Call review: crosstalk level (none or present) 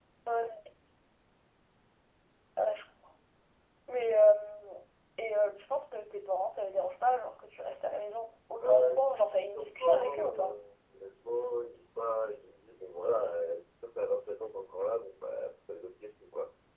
present